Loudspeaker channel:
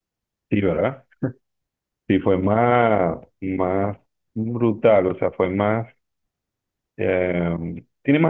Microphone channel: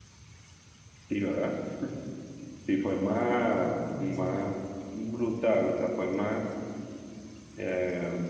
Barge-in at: 3.9 s

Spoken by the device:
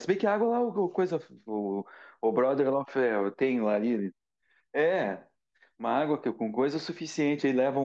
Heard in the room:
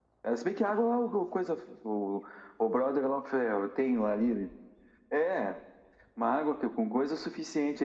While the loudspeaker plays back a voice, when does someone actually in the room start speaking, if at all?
none

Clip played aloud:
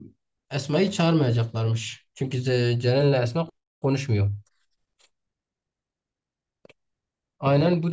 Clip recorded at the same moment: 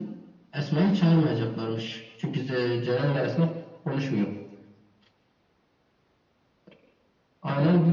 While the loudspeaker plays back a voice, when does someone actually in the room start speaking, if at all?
none

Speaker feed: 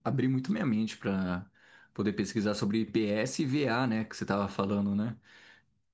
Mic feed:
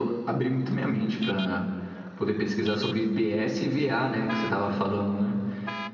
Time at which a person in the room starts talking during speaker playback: none

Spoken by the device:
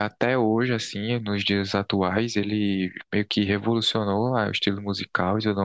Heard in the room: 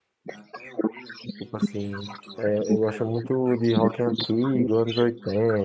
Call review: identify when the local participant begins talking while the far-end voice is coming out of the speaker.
1.4 s

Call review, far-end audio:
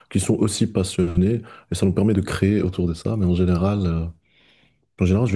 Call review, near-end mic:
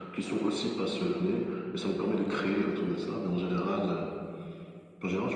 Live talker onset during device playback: none

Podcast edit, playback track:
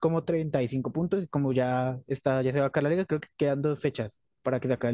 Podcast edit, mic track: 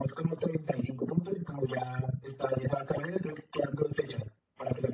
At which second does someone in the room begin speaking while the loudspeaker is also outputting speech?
none

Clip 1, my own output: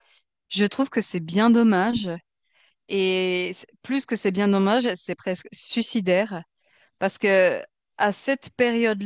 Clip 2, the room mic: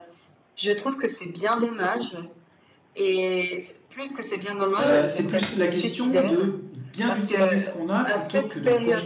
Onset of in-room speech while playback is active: 4.8 s

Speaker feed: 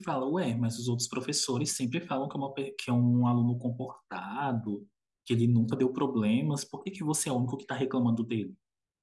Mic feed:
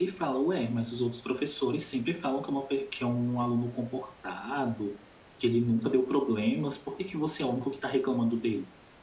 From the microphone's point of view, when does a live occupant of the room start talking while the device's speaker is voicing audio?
none

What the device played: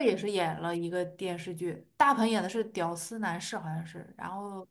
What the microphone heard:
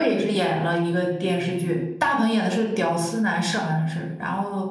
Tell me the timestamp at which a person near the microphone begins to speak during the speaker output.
none

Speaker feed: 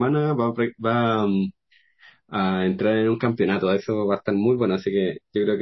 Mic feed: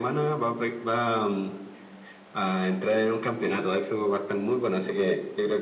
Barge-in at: none

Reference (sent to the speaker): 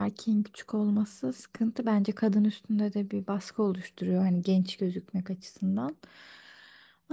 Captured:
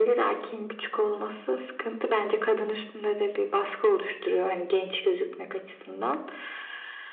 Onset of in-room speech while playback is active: none

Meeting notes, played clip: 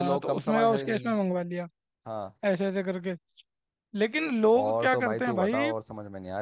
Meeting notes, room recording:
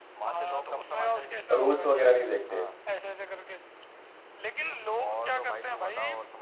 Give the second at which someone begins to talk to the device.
1.5 s

